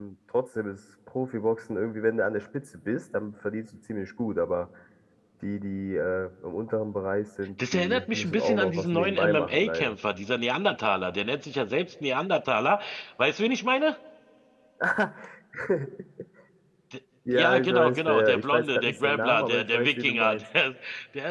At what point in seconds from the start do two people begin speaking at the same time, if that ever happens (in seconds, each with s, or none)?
7.7 s